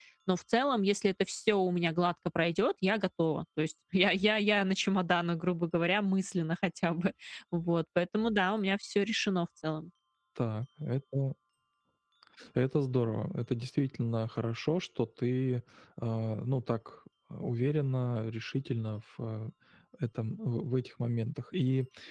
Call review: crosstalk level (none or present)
none